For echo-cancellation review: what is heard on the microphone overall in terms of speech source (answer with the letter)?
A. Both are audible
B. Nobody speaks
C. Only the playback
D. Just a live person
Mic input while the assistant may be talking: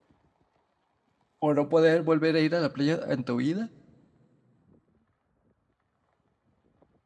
D